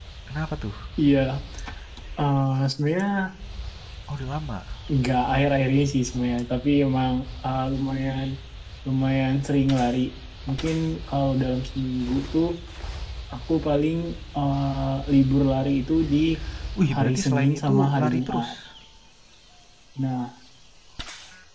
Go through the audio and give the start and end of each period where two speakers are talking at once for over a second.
16.9-18.5

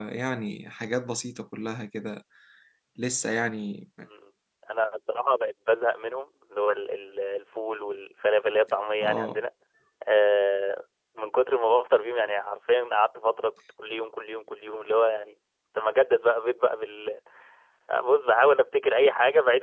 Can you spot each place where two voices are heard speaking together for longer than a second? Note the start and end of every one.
none

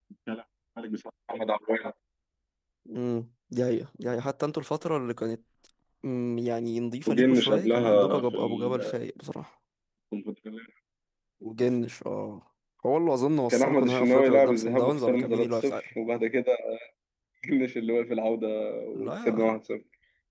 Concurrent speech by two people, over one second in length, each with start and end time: 7.1-8.8, 13.5-15.8

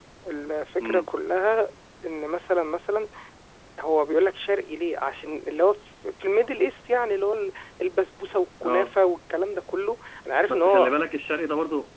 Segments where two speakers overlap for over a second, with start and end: none

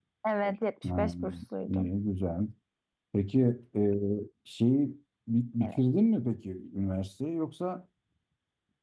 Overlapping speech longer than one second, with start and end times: none

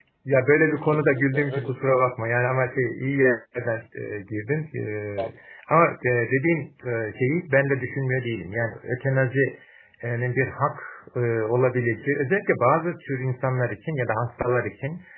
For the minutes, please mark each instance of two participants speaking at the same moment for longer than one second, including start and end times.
0.8-2.0

